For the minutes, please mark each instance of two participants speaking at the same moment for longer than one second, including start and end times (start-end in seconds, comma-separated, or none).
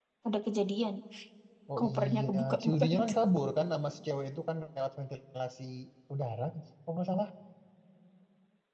1.8-3.1